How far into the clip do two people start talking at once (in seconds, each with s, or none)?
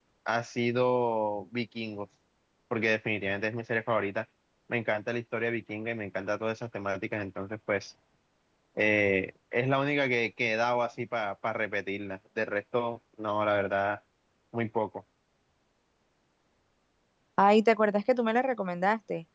none